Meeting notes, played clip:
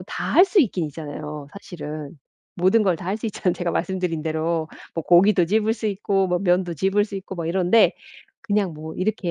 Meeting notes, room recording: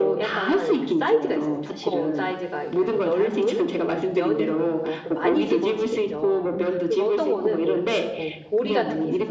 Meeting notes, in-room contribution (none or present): present